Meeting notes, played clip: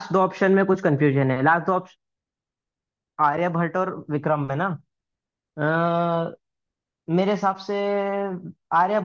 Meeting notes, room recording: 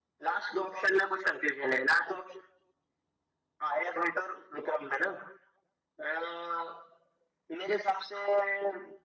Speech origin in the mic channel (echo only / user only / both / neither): echo only